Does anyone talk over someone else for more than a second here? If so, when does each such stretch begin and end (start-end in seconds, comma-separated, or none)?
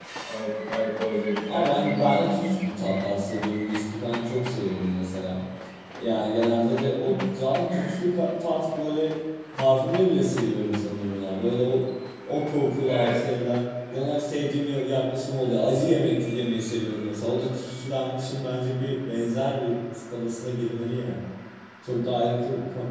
1.5-2.9